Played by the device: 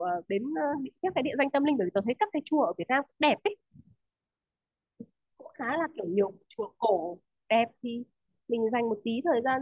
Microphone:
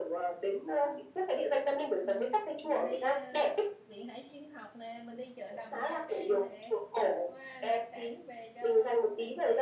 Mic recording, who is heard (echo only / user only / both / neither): both